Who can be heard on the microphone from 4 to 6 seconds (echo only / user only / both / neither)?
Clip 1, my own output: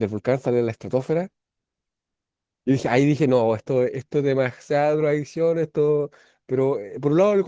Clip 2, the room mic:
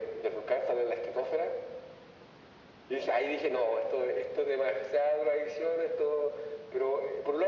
echo only